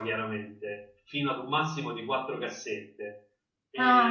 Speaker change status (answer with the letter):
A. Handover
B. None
A